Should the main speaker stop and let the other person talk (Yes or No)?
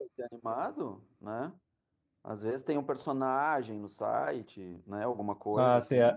Yes